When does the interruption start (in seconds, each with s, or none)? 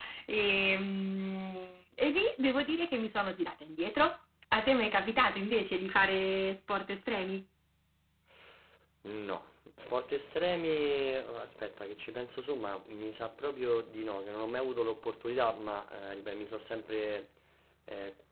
none